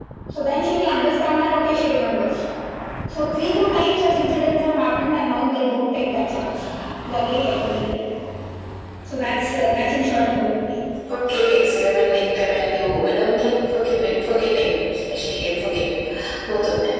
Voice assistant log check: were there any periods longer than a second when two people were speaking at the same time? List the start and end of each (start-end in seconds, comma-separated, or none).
none